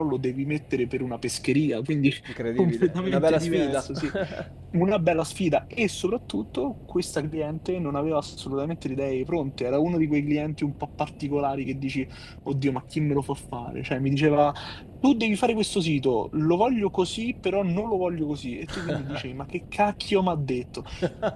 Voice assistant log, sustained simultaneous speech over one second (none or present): present